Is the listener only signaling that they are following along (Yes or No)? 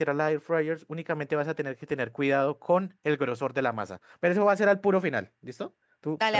Yes